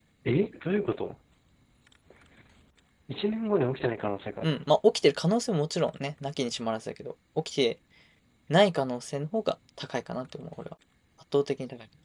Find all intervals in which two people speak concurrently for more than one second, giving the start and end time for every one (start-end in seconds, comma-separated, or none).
none